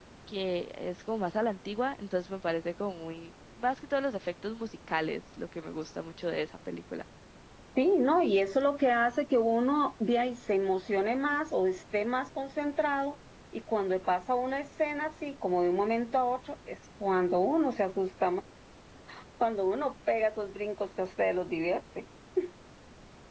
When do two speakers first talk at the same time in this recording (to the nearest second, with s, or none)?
none